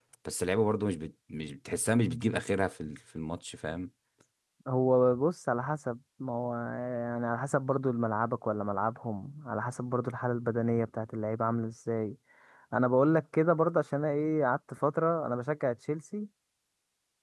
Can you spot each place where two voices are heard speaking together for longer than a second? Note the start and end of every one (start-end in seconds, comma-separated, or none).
none